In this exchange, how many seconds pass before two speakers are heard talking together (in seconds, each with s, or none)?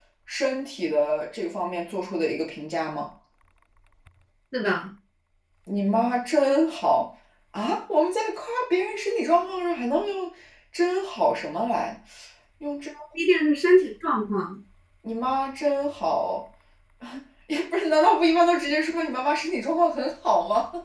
none